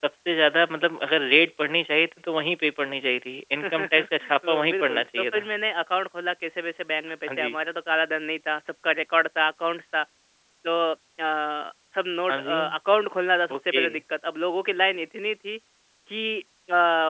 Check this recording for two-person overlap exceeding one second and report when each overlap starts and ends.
3.6-5.5

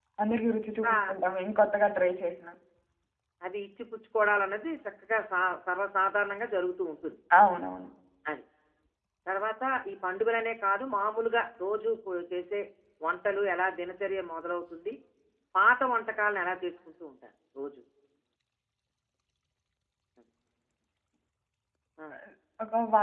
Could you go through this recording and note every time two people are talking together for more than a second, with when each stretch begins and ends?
none

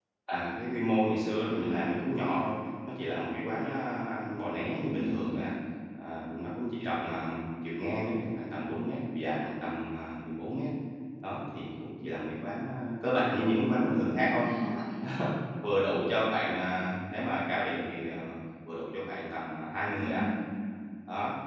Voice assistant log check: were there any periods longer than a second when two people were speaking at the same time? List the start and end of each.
none

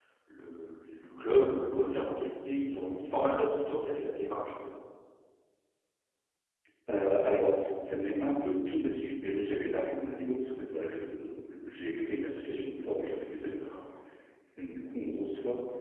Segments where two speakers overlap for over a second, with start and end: none

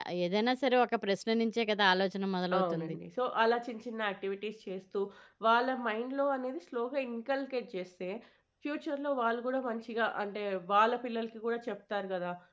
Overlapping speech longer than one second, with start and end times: none

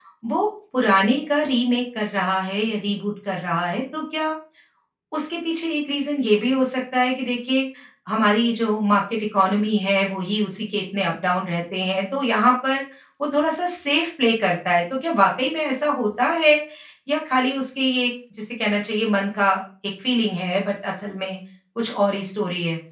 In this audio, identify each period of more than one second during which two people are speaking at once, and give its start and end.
none

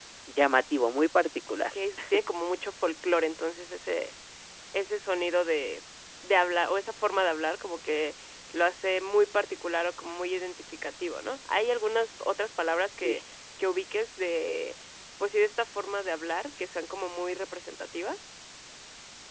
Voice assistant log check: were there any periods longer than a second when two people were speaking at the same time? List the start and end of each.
none

